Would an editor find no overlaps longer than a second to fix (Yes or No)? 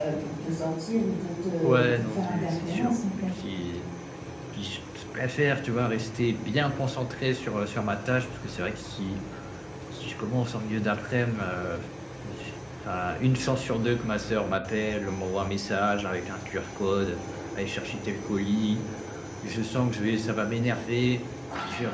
No